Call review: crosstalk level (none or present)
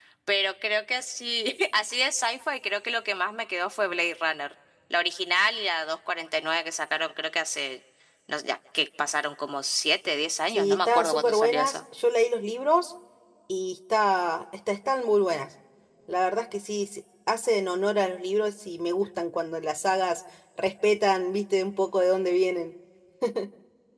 present